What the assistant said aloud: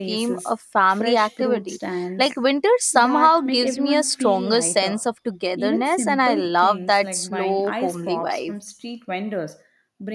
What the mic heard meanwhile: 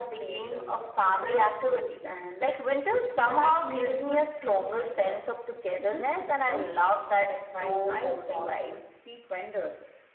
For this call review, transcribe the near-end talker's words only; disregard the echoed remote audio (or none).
none